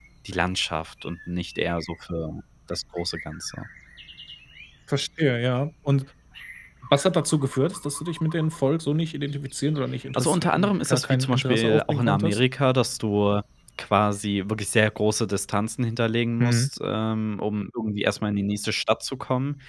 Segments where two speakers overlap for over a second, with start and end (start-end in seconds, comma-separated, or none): 10.2-12.4